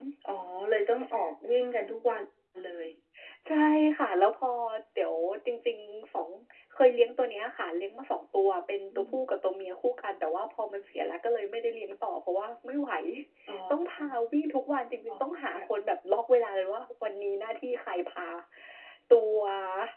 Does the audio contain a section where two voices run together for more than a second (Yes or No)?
No